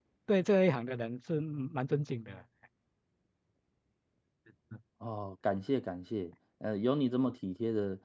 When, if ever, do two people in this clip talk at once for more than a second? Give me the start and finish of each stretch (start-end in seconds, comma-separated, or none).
none